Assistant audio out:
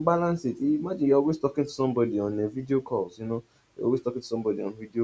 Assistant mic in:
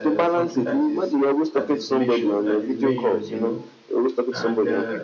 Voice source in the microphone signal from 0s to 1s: both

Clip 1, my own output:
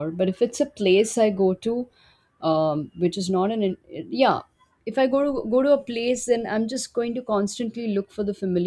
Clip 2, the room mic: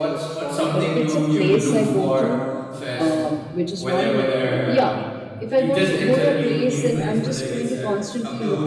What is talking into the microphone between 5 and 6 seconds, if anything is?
both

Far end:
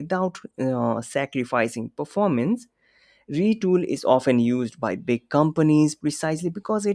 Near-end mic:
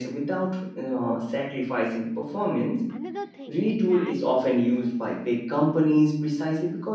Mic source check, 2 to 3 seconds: both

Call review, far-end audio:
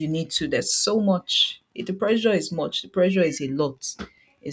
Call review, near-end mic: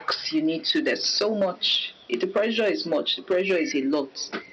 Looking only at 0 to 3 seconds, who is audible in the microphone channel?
echo only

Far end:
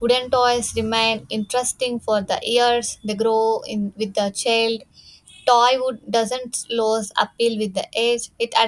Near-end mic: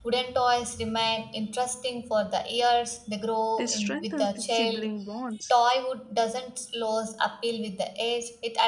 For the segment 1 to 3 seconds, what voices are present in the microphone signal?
echo only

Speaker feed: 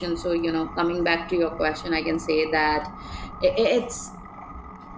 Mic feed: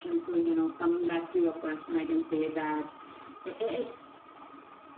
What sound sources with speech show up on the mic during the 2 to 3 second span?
echo only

